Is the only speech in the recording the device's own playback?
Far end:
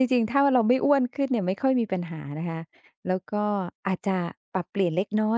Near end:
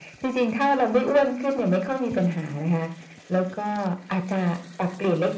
Yes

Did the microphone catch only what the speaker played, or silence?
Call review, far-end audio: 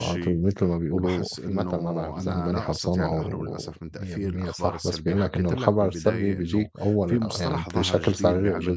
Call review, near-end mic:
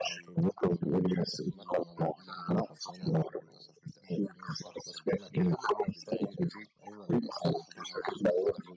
Yes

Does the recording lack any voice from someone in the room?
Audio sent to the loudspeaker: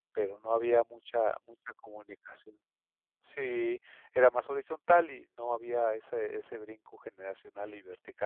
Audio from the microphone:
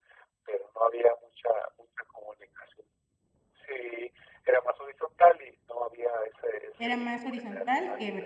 No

